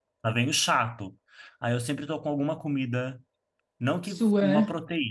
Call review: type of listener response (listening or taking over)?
listening